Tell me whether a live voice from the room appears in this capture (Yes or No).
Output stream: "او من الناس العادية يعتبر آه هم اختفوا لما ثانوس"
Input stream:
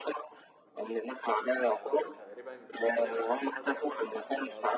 Yes